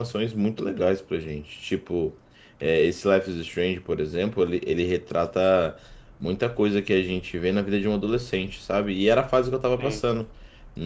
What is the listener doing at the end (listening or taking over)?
listening